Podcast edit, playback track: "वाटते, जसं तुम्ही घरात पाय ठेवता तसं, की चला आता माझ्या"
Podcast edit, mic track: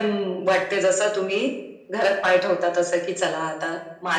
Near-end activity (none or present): none